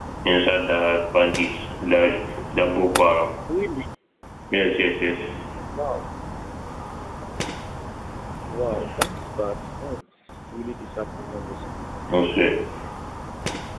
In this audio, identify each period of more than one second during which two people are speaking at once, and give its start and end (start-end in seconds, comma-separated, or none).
none